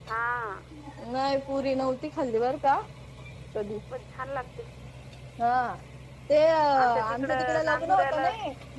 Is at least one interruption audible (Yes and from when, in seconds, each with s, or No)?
Yes, from 6.8 s